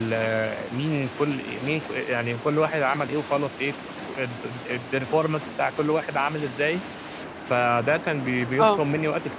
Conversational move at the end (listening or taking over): listening